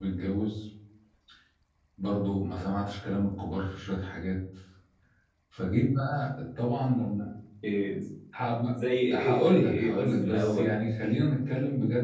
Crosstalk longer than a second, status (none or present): present